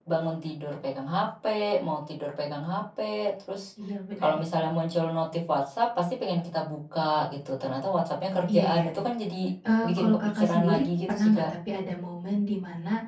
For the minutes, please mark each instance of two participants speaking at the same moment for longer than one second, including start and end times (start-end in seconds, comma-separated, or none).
9.8-11.5